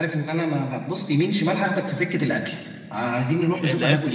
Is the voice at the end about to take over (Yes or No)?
Yes